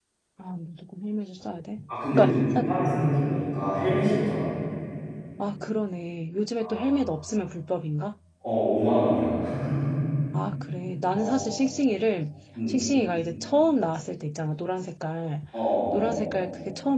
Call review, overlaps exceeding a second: present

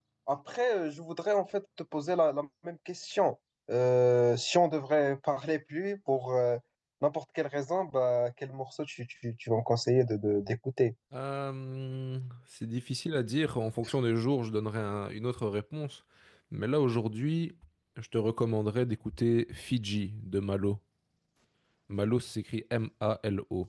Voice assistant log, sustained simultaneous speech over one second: none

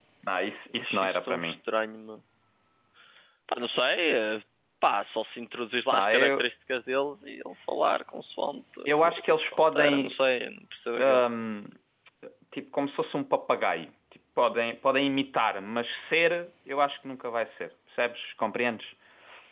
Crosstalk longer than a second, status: present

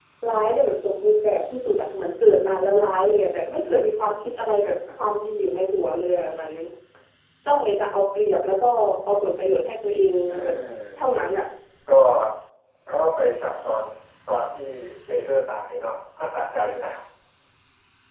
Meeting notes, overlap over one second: none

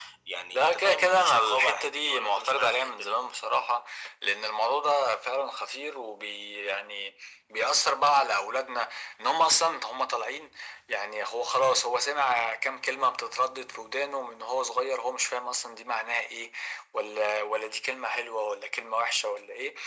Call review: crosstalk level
present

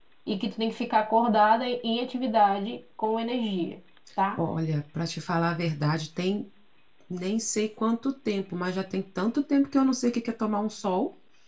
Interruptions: none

